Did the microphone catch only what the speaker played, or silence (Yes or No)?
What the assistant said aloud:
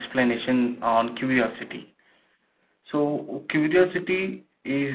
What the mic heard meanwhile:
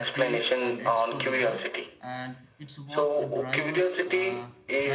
No